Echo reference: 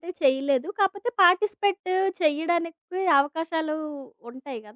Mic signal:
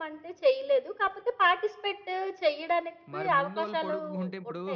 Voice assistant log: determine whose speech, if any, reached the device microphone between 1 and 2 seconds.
echo only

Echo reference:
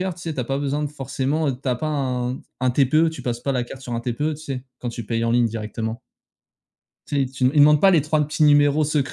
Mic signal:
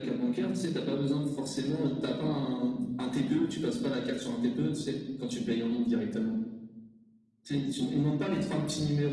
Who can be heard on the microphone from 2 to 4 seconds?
echo only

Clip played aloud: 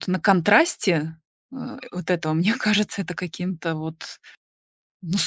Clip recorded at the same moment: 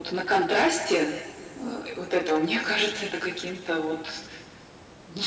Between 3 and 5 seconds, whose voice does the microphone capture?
echo only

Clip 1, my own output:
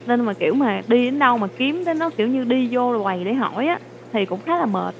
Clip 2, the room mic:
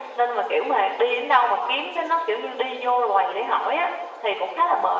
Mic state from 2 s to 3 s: echo only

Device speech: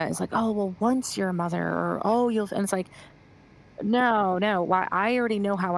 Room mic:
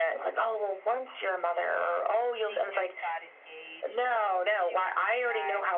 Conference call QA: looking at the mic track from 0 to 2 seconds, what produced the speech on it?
echo only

